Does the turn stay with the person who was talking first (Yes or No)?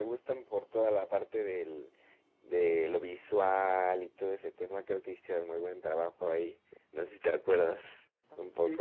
No